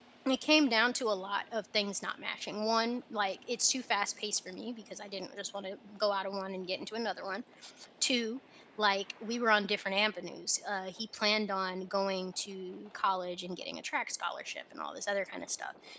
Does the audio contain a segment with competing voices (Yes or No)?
No